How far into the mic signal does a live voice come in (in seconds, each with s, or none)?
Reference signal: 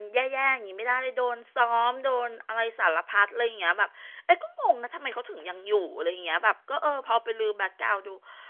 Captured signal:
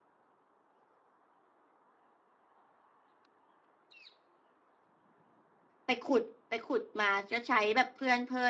5.8 s